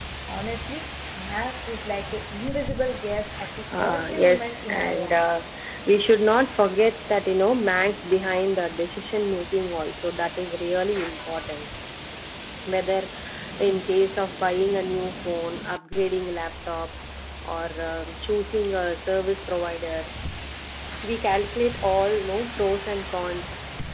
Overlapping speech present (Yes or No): Yes